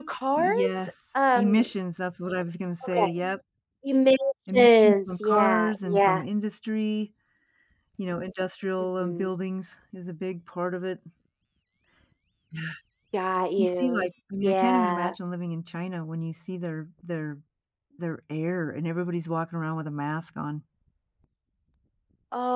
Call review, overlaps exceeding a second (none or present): present